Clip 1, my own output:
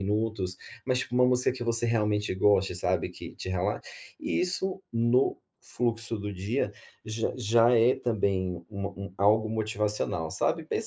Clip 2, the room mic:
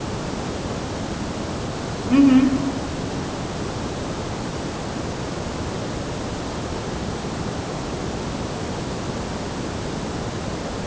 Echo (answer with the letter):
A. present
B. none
B